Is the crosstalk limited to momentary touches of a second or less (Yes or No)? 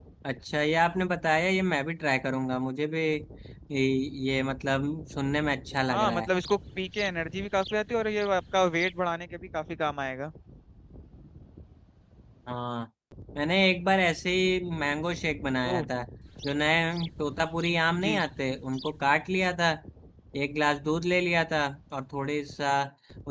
Yes